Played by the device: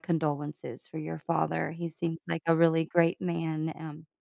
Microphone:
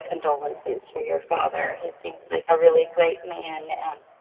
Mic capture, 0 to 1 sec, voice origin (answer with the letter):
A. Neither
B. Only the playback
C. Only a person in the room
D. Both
B